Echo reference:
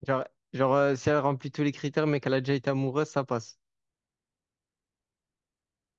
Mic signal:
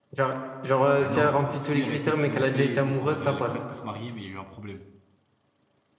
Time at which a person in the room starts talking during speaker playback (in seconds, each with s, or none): 1.0 s